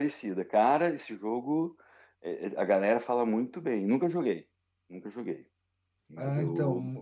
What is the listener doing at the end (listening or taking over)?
taking over